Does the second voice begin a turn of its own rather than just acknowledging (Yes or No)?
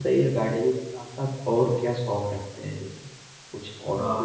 Yes